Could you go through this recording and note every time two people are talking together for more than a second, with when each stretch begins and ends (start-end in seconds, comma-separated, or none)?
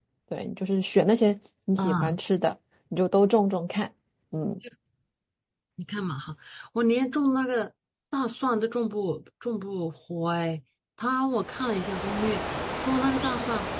none